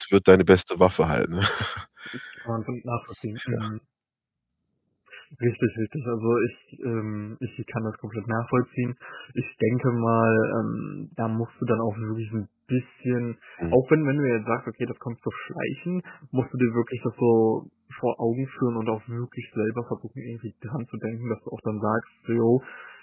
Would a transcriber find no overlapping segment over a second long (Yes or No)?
Yes